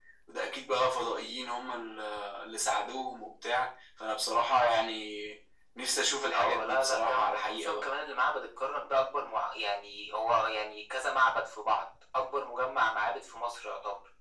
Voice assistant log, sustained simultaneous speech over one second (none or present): present